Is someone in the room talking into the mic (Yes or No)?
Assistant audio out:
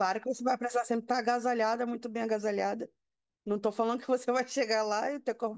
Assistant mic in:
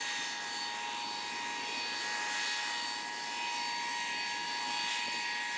No